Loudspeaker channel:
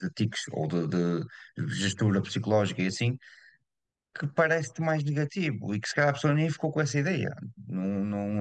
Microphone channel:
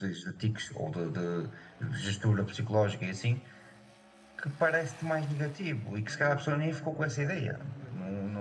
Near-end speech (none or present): present